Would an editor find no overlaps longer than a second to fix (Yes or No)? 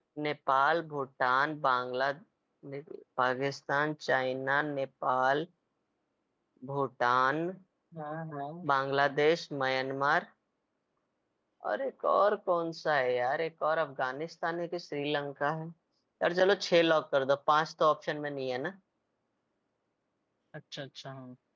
Yes